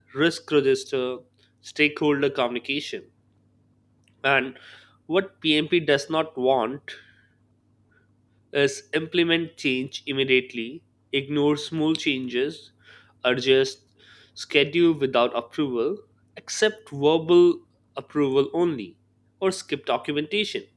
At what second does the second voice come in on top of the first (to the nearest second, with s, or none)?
none